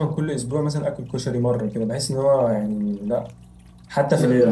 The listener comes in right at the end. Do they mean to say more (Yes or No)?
No